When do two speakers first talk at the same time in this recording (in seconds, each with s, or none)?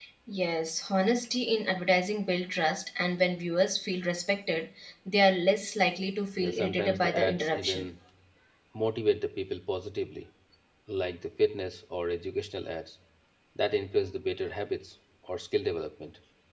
6.4 s